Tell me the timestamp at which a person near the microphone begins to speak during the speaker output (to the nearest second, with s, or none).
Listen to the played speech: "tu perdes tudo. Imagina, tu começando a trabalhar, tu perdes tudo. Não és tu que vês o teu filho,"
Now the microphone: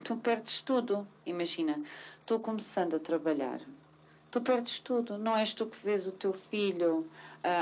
none